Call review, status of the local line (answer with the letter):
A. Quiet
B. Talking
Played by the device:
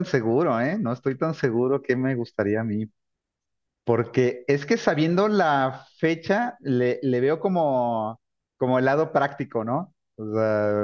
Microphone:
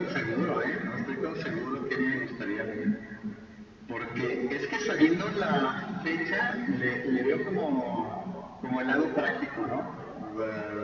A